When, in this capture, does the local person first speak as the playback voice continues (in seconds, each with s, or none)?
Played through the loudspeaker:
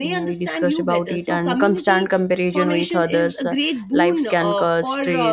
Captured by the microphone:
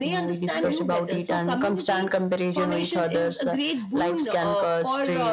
0.5 s